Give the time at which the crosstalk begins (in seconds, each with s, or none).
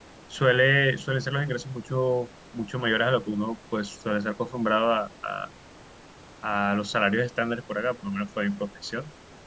none